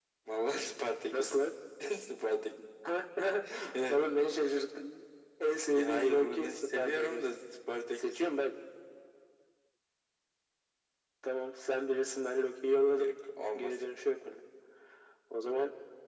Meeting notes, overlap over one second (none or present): present